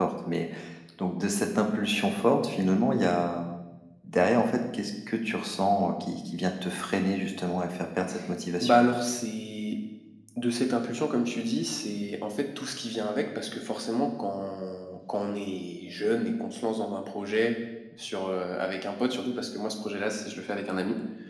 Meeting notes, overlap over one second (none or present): none